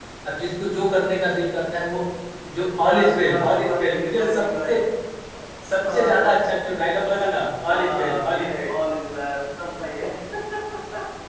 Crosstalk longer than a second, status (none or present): present